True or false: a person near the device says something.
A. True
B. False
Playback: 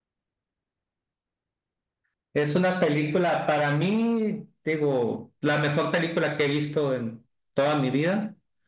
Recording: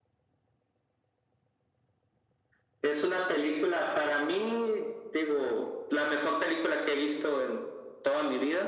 B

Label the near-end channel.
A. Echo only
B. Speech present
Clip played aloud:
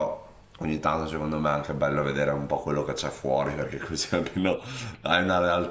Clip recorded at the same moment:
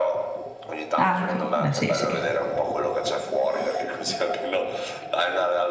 B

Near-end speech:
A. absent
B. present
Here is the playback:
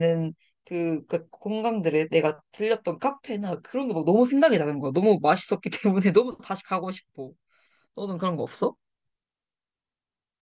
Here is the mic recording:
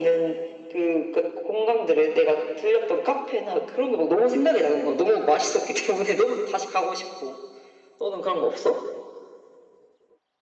A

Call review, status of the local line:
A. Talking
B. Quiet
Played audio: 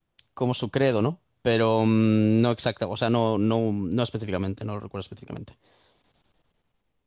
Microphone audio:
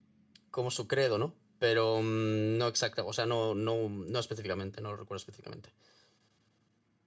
B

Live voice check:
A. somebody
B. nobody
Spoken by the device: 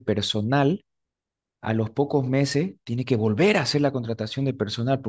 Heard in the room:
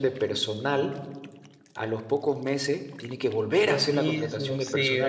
A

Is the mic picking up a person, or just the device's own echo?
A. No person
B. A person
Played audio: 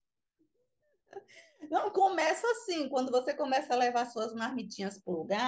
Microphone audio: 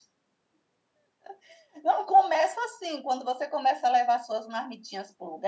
A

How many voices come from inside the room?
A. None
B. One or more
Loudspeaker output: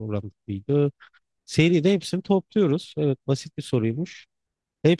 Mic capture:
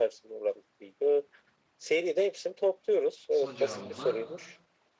B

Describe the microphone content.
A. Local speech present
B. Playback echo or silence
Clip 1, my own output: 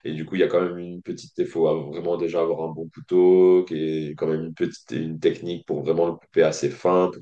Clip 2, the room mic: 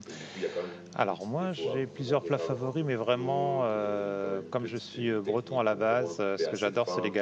A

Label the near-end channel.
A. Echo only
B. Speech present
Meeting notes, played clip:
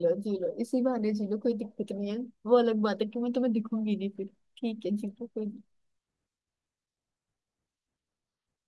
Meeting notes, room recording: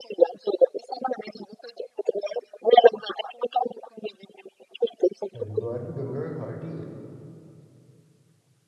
B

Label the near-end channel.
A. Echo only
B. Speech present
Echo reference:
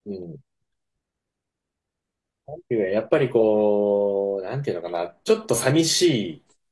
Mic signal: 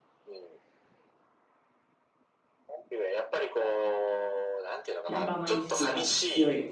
B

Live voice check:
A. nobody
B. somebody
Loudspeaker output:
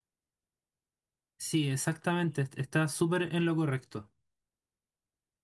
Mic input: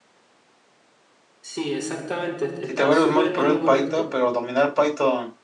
B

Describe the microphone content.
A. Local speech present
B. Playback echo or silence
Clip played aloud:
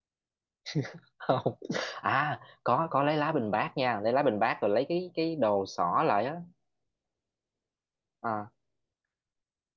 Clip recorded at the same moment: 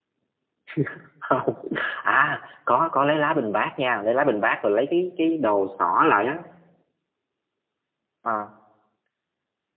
B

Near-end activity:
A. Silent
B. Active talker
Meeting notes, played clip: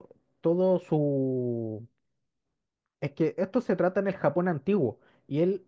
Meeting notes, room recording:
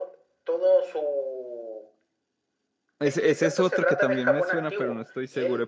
B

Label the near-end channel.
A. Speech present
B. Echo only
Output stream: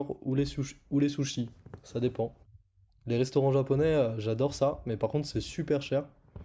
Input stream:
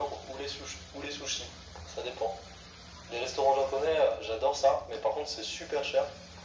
B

